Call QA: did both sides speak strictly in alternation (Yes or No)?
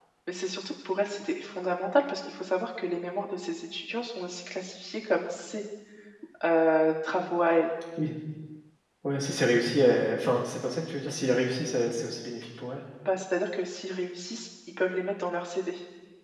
Yes